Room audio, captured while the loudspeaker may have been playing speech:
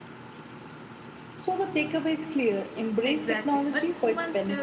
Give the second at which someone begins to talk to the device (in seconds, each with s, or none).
none